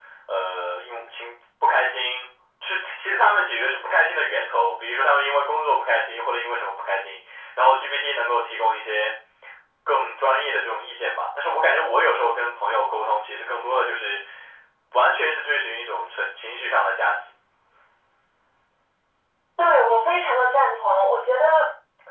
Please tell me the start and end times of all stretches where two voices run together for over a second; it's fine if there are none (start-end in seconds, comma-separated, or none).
none